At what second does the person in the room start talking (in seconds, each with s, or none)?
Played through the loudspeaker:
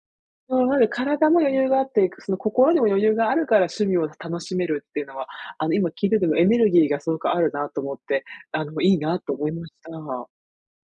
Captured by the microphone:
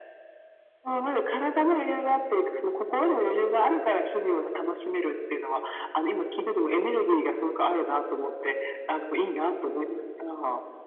none